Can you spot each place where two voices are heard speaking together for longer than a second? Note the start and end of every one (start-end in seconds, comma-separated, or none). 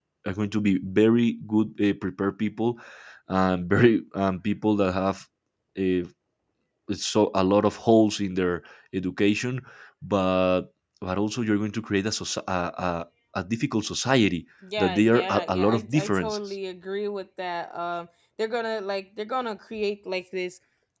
14.8-16.4